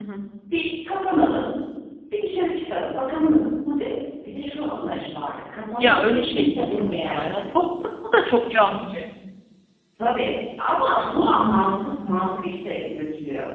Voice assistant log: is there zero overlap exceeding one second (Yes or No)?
No